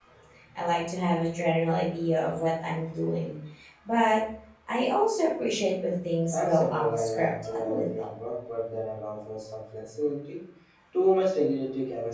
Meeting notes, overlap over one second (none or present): present